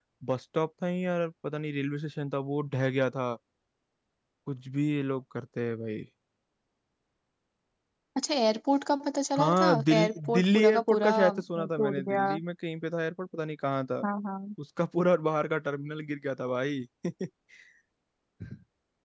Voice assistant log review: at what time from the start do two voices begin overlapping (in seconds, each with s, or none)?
9.3 s